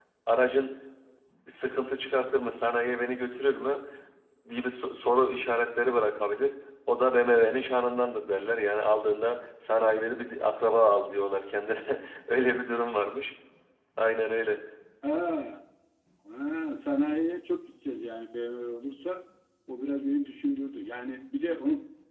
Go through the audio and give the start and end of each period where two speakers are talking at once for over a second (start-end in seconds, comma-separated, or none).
none